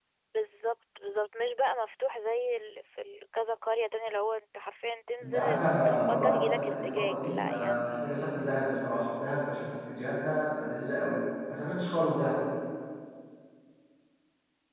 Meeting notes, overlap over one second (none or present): present